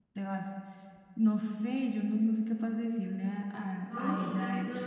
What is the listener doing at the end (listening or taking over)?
taking over